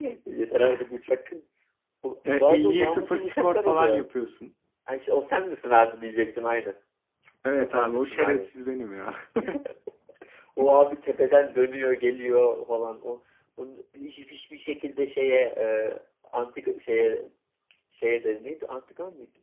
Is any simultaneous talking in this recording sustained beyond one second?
Yes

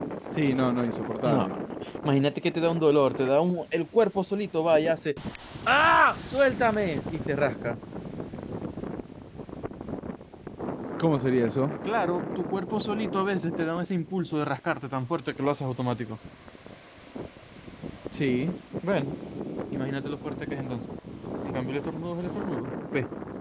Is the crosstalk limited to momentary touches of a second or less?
Yes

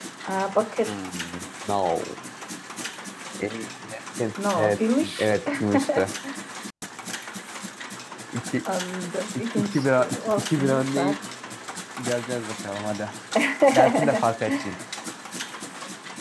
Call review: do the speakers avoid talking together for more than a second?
No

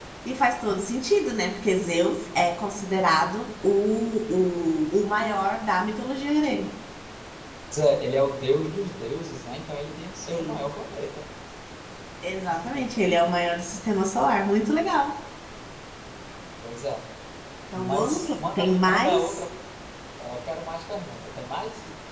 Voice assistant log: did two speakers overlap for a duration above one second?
Yes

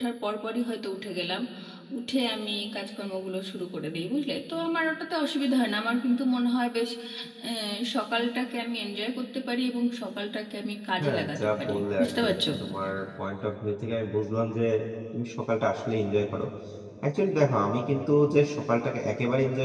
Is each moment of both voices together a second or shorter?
No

